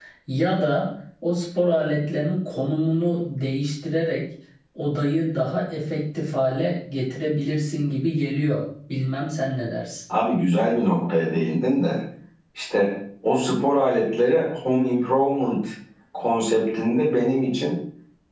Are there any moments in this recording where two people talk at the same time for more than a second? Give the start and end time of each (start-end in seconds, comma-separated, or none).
none